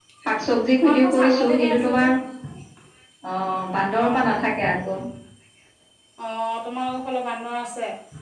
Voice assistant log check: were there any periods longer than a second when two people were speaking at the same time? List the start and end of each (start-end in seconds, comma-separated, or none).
0.8-2.1